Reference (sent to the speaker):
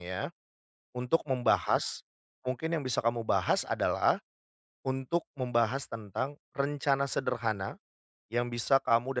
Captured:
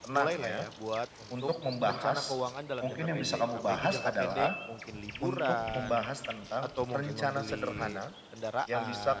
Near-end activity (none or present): present